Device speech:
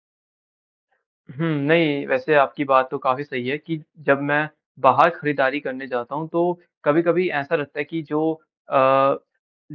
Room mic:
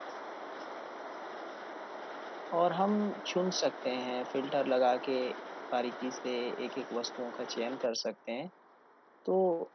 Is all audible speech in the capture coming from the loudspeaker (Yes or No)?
No